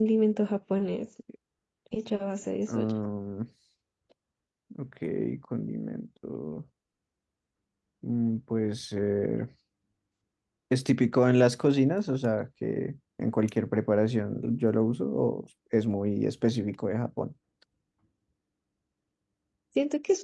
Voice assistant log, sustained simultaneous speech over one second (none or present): none